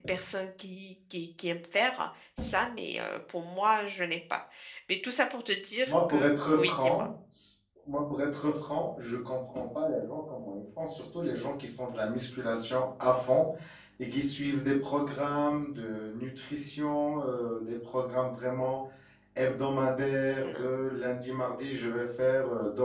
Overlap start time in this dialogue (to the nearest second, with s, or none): 6 s